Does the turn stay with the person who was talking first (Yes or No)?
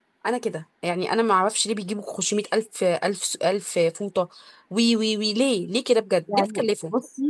No